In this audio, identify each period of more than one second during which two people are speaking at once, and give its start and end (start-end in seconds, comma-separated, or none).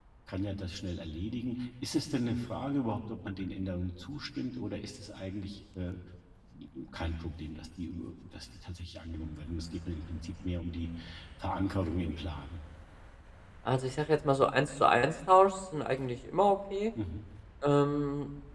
none